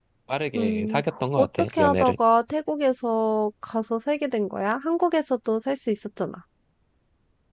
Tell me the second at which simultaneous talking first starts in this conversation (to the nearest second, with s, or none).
1 s